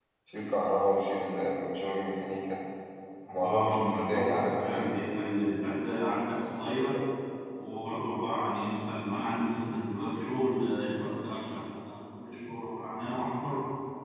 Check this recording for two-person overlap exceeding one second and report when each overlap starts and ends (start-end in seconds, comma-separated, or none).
3.4-4.9